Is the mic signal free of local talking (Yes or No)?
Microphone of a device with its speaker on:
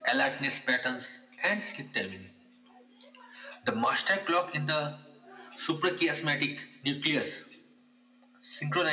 Yes